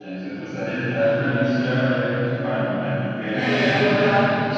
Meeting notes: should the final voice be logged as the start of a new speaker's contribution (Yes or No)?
Yes